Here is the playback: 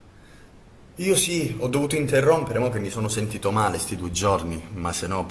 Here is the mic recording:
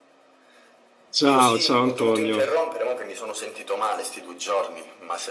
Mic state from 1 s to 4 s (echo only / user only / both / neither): both